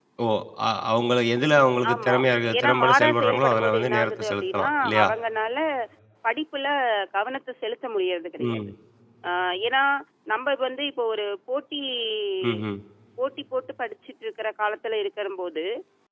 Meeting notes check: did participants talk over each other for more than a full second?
Yes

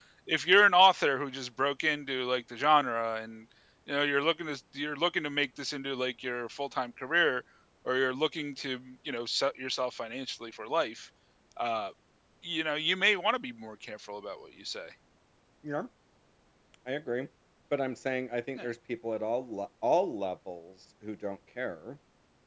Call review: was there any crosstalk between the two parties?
No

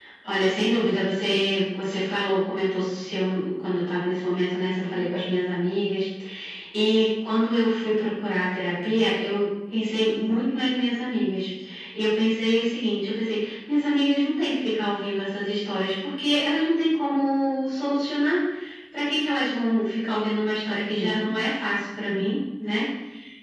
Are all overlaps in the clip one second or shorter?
Yes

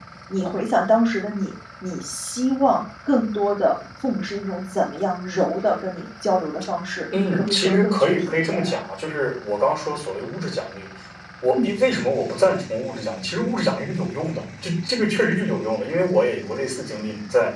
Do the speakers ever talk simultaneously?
Yes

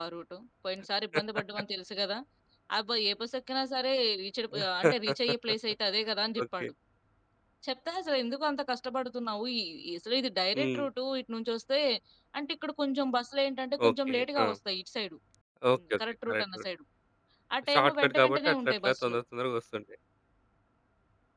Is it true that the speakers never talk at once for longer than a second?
No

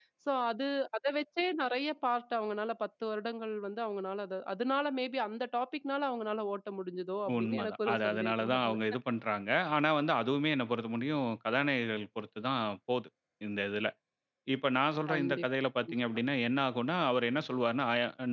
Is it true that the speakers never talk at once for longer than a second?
No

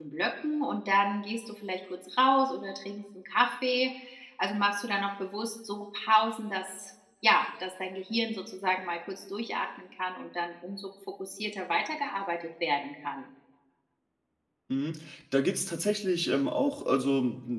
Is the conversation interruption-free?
Yes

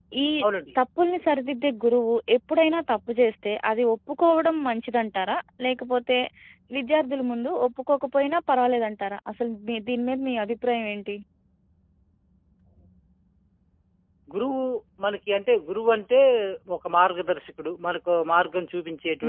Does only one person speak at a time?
Yes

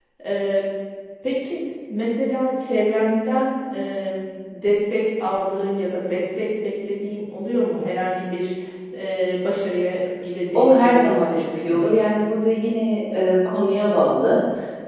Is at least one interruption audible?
Yes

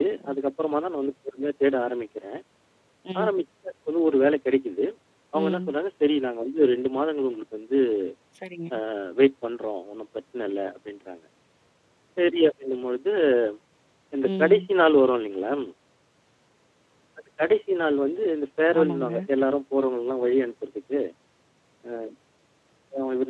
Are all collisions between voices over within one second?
Yes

